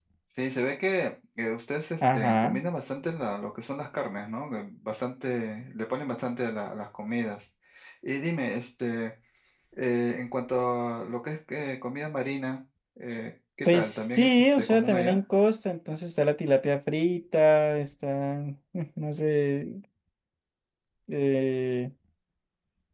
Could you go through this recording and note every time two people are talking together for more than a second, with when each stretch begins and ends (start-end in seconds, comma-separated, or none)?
13.7-15.2